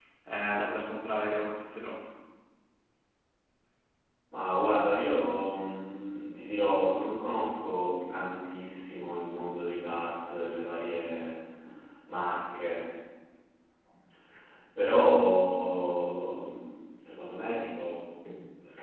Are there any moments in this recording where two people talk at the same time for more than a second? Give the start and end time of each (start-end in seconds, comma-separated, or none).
none